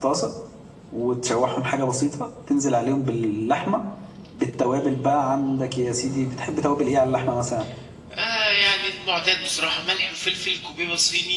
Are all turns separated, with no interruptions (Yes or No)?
Yes